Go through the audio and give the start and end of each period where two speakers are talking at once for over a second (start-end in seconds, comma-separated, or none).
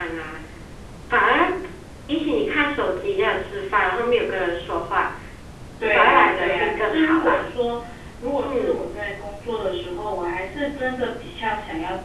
5.9-7.4